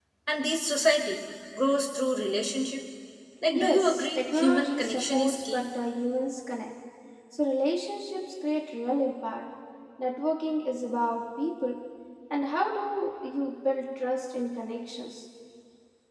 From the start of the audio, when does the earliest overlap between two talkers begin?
3.5 s

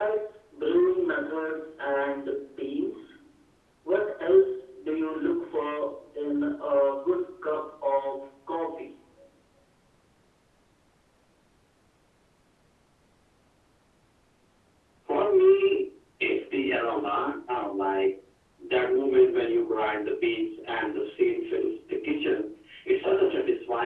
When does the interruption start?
none

